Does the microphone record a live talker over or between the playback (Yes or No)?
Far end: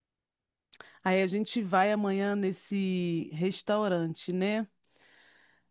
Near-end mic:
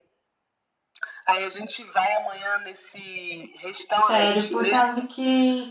Yes